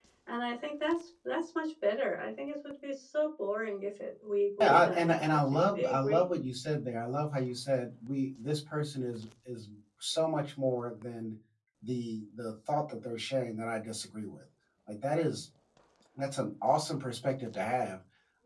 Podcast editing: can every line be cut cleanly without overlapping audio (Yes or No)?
No